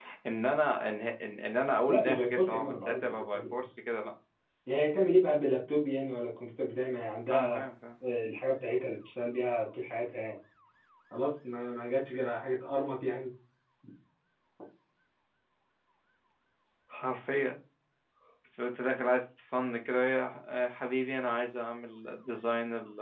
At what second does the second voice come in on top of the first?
1.9 s

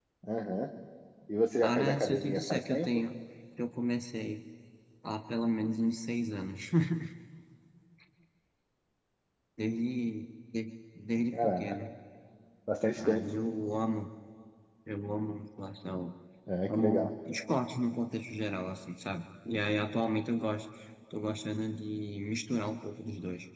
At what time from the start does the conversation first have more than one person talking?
1.6 s

